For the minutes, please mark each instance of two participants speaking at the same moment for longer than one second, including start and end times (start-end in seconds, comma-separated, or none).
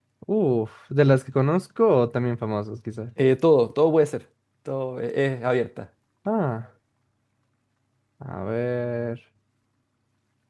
none